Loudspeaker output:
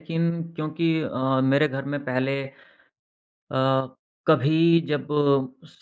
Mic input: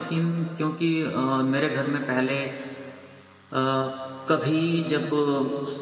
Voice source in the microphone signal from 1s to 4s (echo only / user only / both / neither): echo only